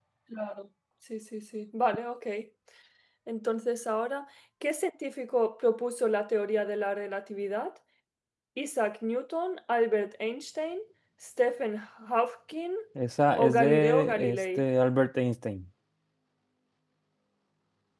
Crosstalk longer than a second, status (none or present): present